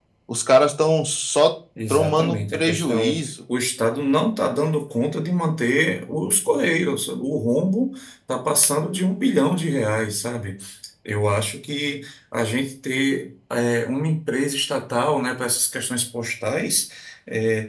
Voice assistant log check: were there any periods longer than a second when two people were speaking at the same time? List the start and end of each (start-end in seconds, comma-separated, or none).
1.9-3.3